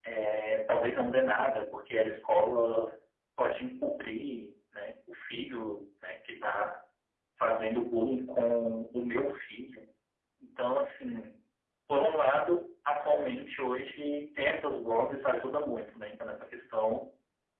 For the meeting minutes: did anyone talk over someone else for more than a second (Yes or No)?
No